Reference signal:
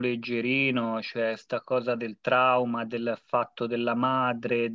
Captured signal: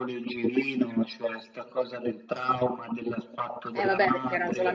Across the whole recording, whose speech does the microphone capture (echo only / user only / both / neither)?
both